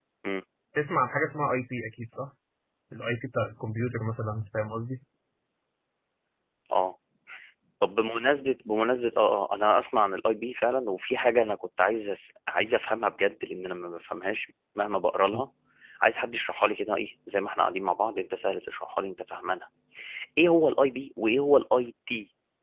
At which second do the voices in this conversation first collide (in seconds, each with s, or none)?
none